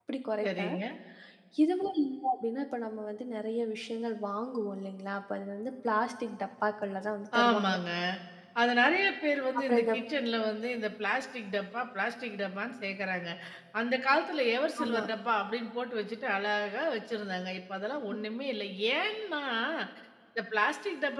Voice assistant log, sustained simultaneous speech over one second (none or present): none